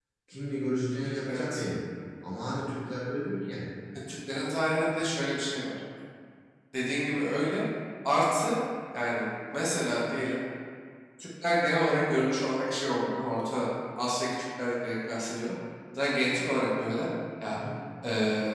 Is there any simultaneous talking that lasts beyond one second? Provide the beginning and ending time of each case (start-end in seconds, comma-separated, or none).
none